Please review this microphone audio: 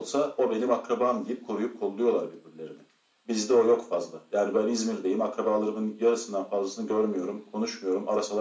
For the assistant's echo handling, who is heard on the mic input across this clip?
echo only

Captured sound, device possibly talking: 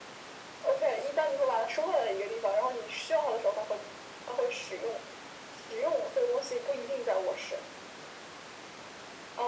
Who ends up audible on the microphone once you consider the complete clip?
echo only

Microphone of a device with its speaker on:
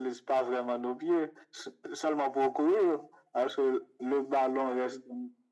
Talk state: echo only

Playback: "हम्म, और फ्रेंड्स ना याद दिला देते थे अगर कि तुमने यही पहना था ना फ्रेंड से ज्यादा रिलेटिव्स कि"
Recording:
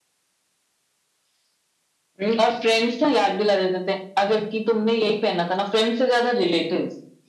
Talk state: echo only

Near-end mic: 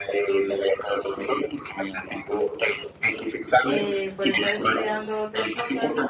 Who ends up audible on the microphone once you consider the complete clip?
both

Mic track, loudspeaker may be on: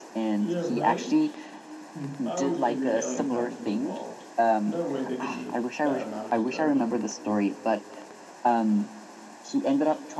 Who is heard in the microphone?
both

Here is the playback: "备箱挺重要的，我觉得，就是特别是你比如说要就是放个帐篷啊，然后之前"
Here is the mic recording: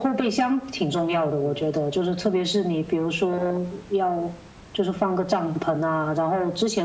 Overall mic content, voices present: echo only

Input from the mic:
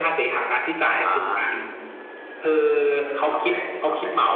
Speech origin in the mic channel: echo only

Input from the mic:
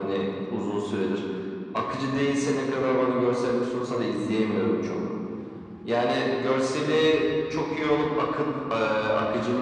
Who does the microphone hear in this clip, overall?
echo only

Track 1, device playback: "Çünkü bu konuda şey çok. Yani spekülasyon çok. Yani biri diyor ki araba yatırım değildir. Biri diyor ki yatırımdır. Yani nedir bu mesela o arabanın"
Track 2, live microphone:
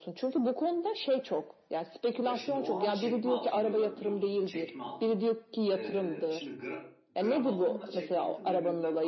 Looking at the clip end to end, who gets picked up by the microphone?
both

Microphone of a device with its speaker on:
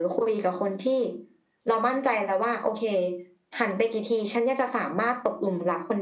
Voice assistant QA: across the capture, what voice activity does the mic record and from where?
echo only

